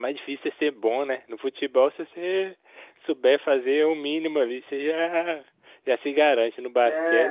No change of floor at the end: No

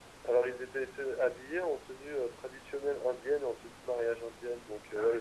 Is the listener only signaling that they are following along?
Yes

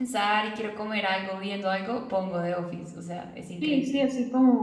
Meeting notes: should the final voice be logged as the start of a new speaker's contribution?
Yes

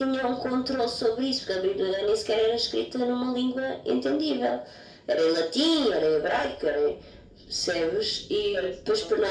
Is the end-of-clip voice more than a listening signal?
No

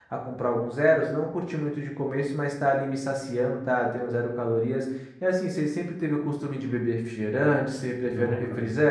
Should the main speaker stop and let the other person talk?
Yes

